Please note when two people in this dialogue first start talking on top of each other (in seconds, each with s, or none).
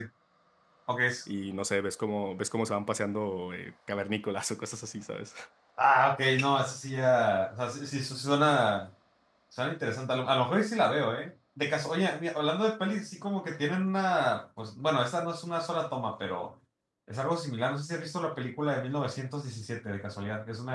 none